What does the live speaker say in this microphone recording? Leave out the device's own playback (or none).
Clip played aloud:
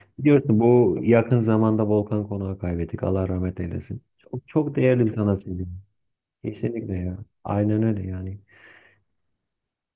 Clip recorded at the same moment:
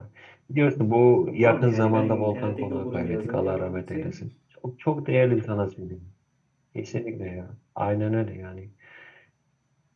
Ama abi yani ben internetteki okuduğum yazının yalancısıyım.